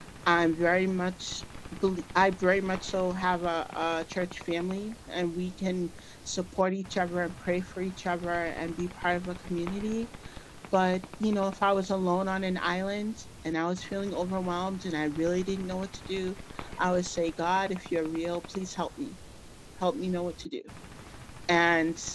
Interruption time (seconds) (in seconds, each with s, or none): none